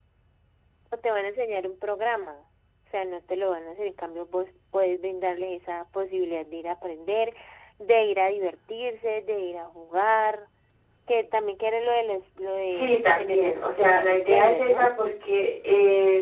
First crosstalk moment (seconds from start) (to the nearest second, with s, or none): 13 s